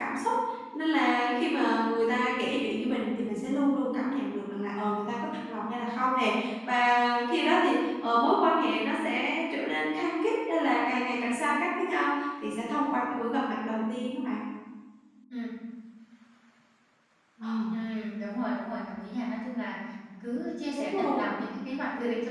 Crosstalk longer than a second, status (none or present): none